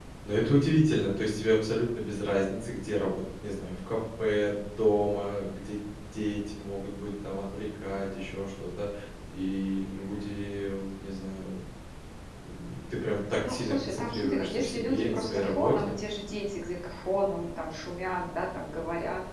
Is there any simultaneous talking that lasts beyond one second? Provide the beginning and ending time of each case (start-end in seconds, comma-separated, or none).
13.4-15.9